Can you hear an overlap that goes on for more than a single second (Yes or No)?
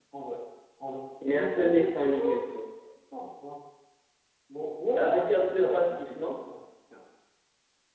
Yes